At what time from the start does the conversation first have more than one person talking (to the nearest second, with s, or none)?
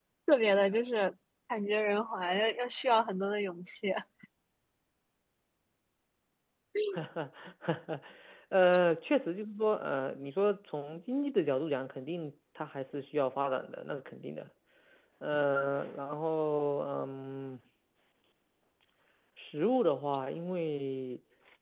none